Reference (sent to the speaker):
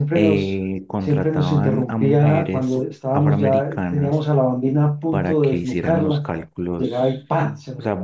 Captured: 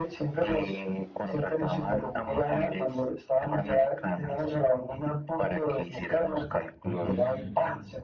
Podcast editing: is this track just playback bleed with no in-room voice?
No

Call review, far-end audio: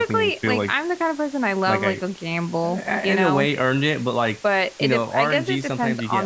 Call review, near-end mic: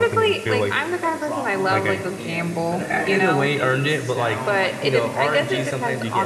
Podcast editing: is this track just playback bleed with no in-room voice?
No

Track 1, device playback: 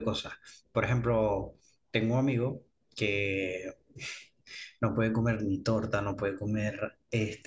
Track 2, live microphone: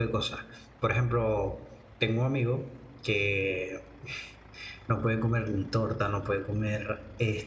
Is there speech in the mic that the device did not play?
No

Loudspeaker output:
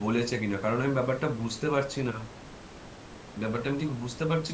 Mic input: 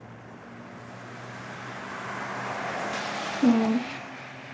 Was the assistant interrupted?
Yes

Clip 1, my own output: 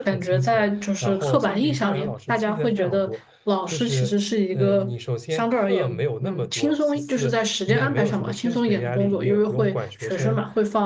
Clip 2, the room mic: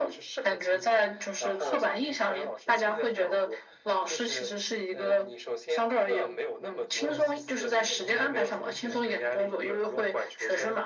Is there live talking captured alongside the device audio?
Yes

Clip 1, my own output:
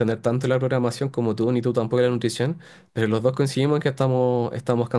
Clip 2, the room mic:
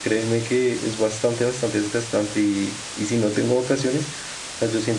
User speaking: Yes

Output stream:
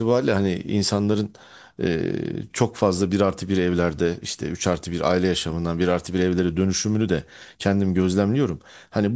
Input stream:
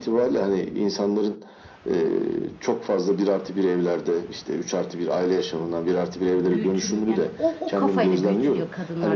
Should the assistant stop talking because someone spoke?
Yes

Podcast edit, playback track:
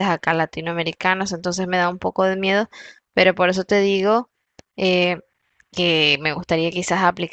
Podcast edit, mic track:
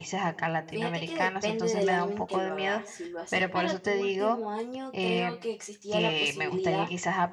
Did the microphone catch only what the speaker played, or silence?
No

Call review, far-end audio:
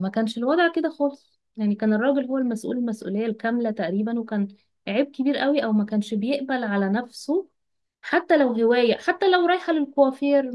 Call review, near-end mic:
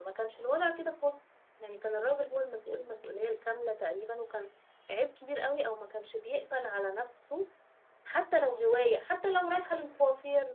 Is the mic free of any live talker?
Yes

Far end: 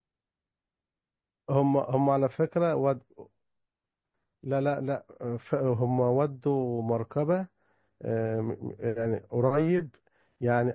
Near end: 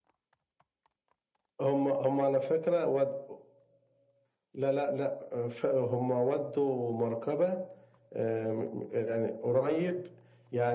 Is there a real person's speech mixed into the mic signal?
No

